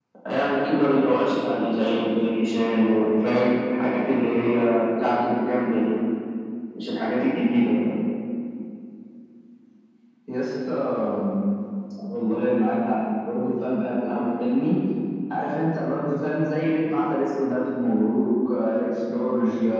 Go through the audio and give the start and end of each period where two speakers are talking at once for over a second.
none

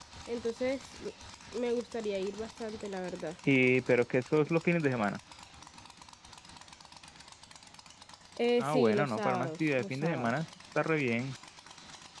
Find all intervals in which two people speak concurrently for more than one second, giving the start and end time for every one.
8.6-10.3

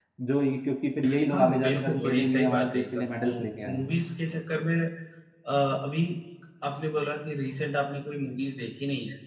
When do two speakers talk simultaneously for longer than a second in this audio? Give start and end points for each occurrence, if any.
1.3-3.9

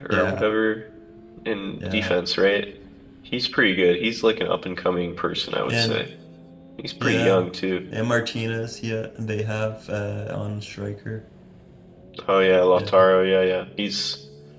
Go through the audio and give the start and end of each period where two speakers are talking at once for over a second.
none

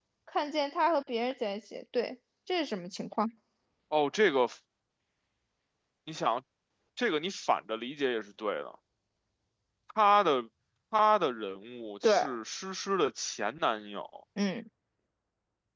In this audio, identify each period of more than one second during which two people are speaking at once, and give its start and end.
none

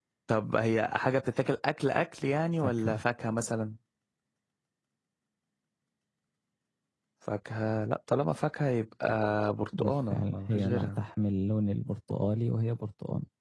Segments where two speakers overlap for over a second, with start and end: 9.8-11.0

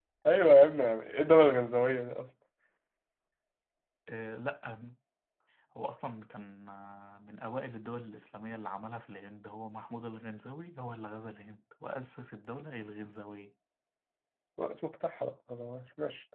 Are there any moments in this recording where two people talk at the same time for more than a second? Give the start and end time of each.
none

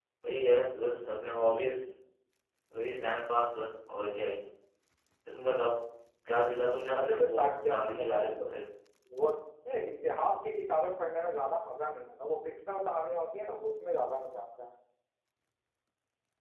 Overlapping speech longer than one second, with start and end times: 6.9-8.5

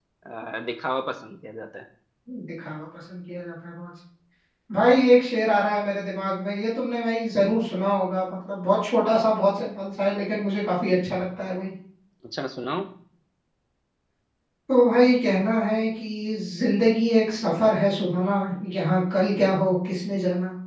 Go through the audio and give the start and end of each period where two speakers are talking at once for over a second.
none

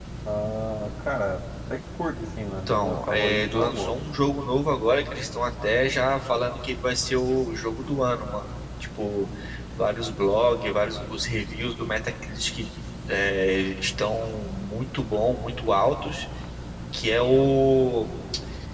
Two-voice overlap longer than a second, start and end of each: 2.5-3.9

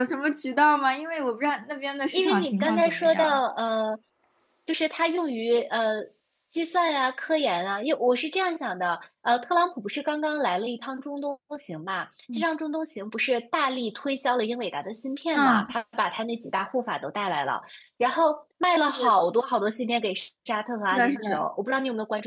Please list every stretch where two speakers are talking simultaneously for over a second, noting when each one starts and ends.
2.1-3.4

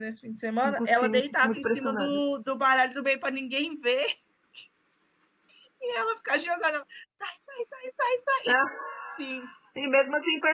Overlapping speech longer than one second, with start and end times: 0.6-2.2

